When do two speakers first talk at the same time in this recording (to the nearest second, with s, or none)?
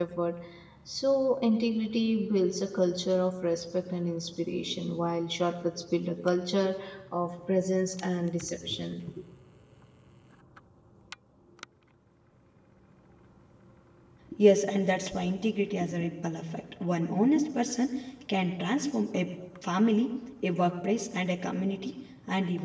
none